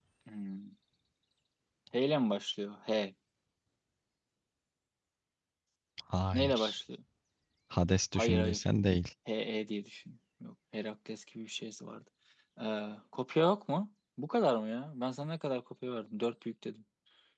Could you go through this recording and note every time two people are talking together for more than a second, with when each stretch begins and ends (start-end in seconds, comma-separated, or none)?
none